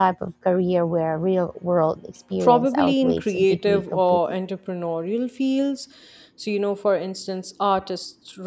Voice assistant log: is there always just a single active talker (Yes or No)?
No